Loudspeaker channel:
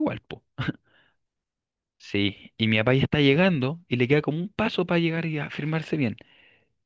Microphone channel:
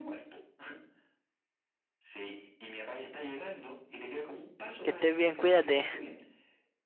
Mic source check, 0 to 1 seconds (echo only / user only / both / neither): echo only